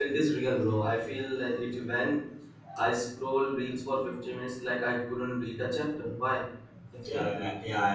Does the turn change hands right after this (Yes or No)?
Yes